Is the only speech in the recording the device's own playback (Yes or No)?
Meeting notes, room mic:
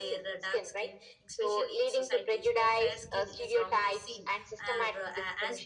No